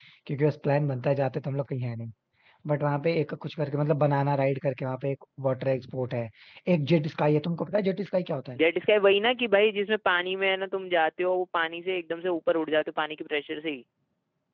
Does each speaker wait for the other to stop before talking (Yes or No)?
Yes